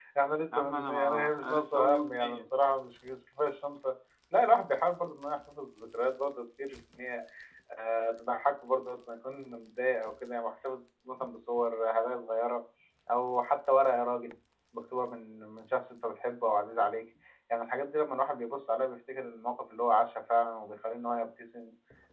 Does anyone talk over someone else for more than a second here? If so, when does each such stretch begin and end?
0.6-2.5

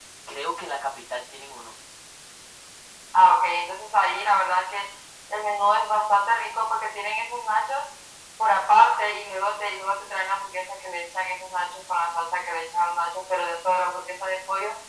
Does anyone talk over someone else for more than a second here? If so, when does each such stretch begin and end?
none

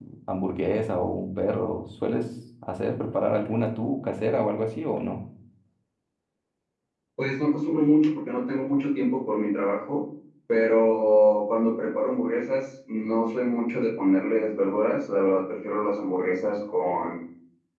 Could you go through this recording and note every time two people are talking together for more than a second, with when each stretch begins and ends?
none

